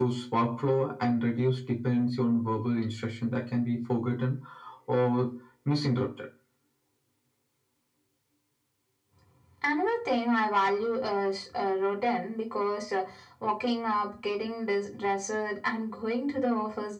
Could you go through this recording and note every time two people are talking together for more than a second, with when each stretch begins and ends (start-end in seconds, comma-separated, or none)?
none